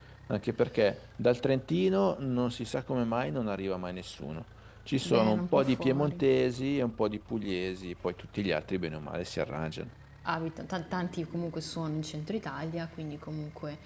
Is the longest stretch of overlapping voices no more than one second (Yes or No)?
No